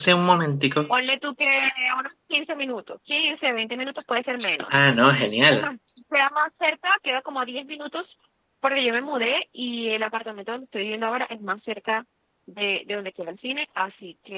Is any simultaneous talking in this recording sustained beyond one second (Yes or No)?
No